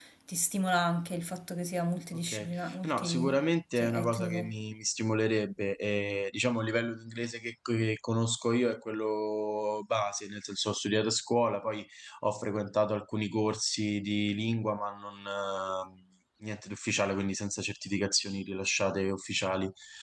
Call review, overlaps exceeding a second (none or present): present